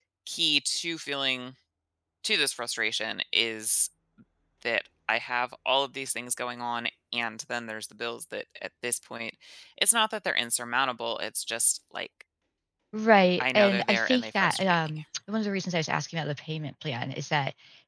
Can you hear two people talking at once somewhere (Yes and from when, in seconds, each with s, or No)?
Yes, from 13.4 s